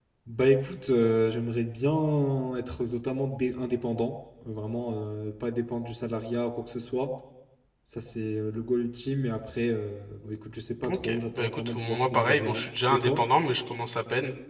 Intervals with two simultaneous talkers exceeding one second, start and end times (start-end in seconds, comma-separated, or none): 10.9-13.2